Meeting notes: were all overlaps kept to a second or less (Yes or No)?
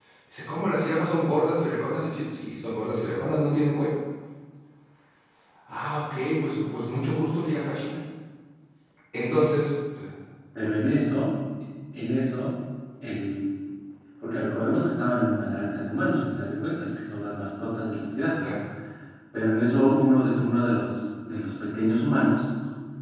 Yes